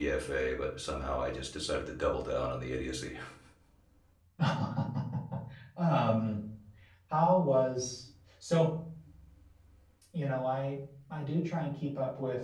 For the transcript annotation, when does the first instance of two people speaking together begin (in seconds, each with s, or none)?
none